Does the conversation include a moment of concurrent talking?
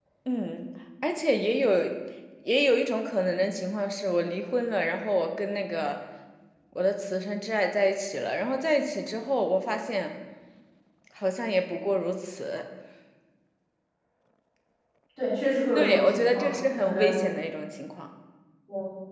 Yes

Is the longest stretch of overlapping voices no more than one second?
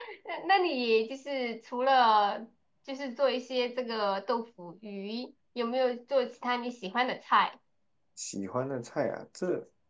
Yes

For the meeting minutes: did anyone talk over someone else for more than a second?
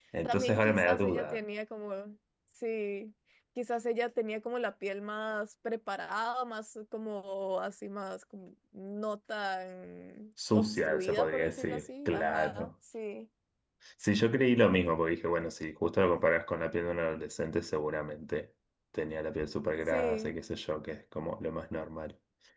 Yes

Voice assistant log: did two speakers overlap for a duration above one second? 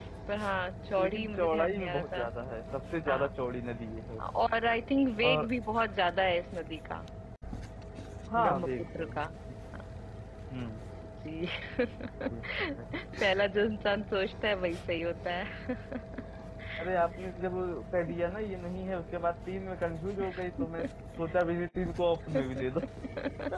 Yes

